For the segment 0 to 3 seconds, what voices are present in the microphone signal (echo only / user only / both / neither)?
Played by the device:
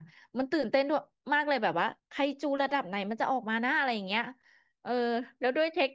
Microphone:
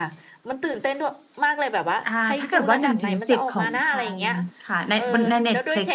both